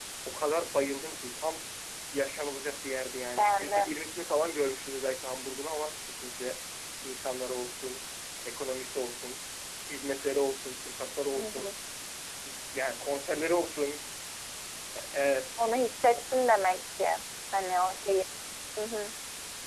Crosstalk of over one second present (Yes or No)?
No